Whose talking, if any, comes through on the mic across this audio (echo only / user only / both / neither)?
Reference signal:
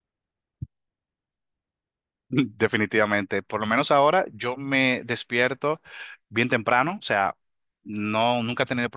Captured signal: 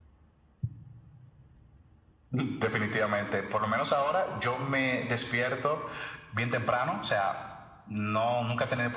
echo only